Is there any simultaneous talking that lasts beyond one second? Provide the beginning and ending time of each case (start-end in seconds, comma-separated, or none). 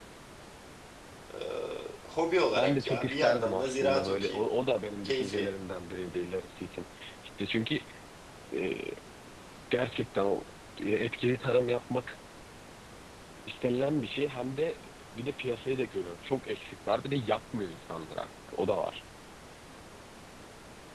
2.6-4.4